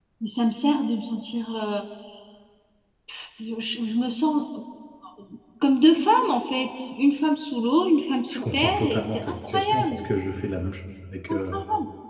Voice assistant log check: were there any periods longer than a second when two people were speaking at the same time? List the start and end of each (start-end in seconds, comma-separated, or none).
8.3-10.1